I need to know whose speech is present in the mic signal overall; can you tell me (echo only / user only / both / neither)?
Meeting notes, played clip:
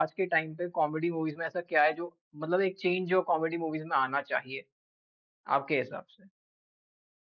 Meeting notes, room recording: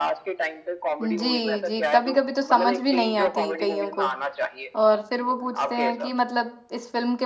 both